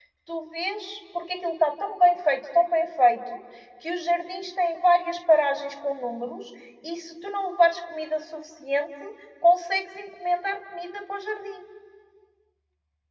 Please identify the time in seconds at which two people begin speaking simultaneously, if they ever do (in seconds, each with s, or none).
none